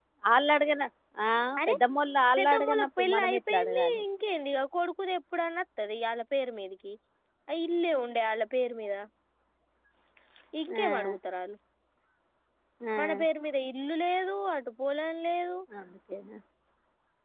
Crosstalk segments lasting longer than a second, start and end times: 2.4-4.0

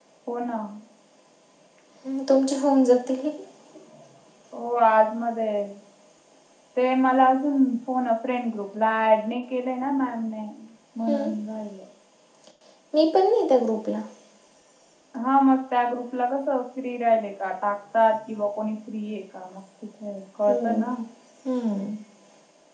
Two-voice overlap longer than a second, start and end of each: none

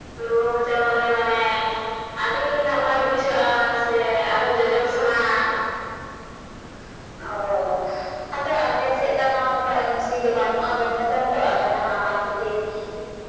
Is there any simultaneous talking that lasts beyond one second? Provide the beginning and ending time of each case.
none

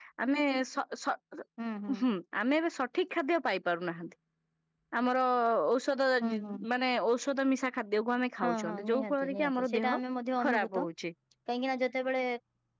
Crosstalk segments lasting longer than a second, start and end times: 8.5-9.9

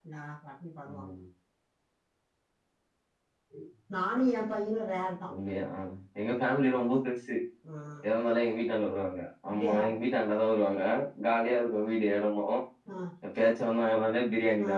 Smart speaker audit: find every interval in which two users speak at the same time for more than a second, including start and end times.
none

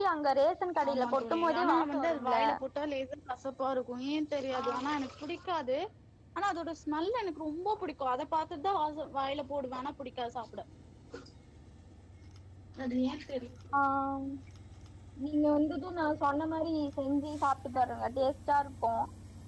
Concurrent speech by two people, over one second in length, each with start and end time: 0.9-2.4

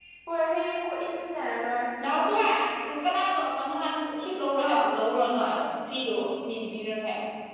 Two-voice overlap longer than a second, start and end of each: none

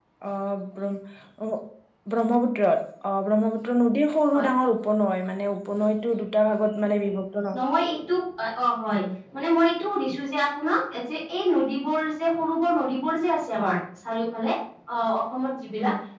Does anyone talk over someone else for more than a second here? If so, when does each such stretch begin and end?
none

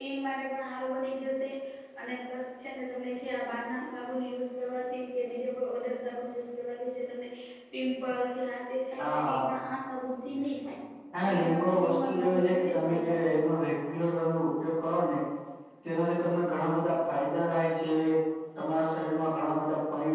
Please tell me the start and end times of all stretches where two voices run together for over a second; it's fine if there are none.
11.2-13.3

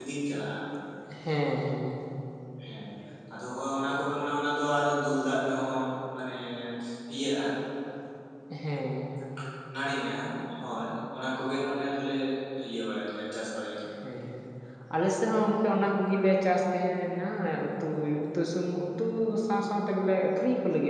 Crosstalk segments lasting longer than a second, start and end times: none

